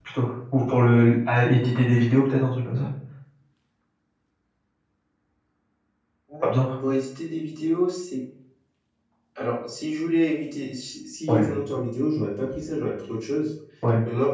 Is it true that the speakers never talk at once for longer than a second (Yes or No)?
Yes